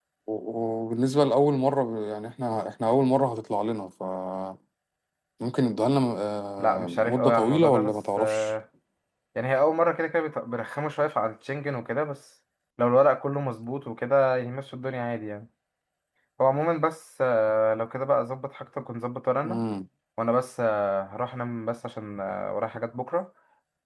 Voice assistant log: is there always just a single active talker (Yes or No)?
No